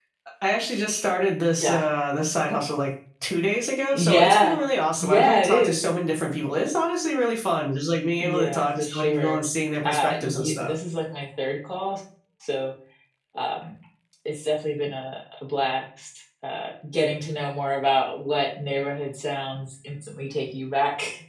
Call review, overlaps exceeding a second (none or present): present